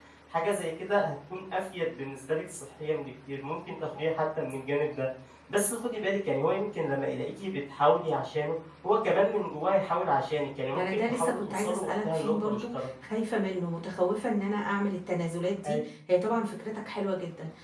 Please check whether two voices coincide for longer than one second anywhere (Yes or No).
Yes